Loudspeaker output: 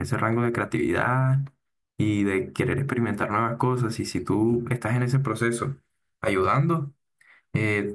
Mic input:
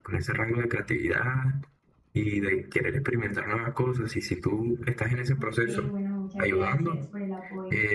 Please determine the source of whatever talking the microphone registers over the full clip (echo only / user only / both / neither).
both